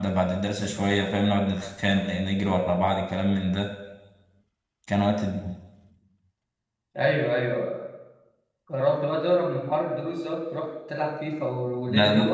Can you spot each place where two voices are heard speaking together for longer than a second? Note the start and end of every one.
none

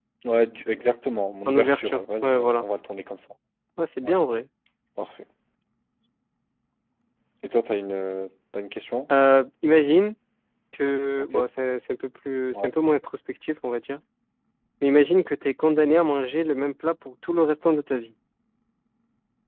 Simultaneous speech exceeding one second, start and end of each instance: 1.5-2.7

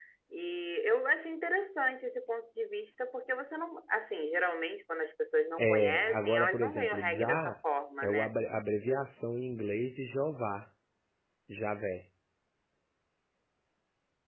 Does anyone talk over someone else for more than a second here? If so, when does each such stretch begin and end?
5.6-7.5

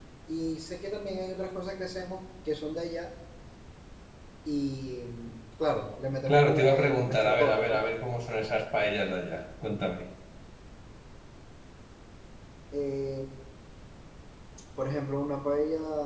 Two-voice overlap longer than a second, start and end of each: 6.3-7.8

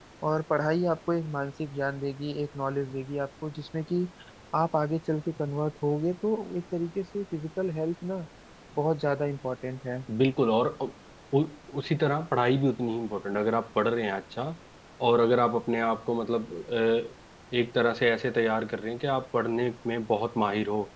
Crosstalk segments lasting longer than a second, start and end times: none

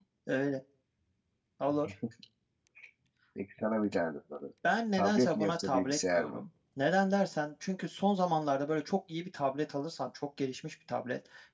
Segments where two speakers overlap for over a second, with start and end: 5.0-6.4

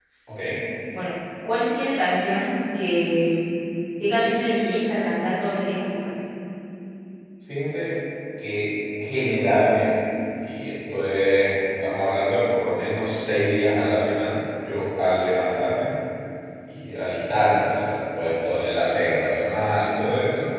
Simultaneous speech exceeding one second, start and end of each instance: none

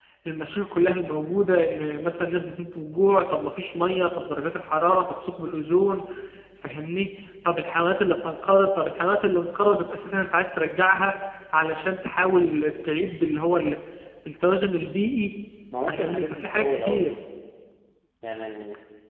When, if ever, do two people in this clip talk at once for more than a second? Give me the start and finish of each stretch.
15.9-17.1

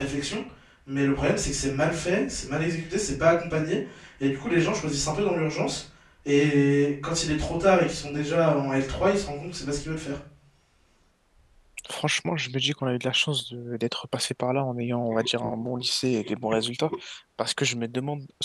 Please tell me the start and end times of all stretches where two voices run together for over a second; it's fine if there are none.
none

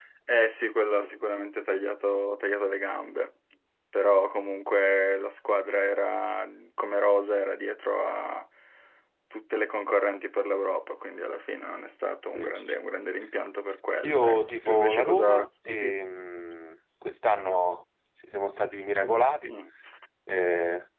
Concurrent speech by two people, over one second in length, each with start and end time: 14.0-15.9

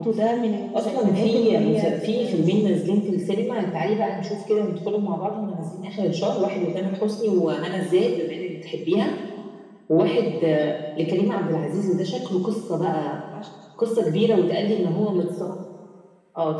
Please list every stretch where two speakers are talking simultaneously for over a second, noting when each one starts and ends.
0.7-2.6

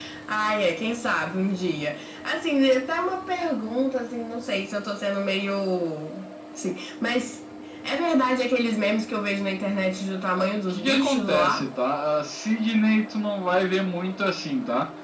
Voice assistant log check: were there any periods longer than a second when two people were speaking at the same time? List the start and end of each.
10.4-11.6

